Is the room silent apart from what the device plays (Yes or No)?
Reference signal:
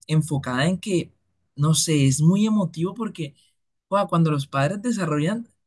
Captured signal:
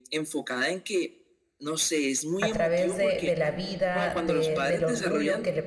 No